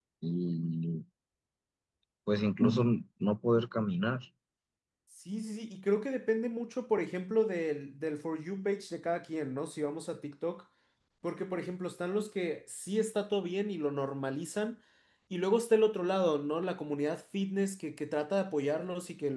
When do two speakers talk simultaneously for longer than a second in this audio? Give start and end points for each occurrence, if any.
none

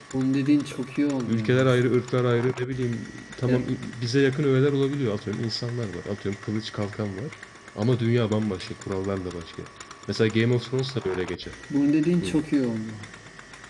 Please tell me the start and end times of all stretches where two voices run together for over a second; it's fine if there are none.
none

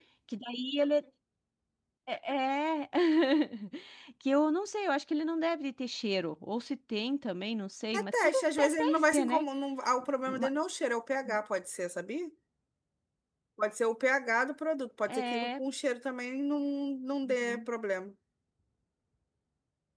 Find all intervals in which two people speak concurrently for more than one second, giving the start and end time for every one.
8.0-9.4

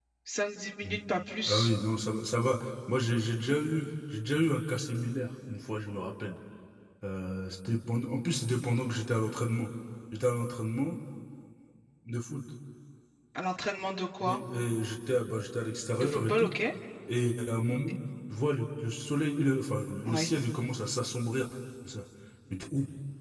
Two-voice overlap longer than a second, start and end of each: none

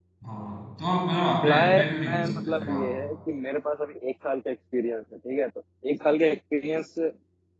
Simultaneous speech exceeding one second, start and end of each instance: 1.3-2.8

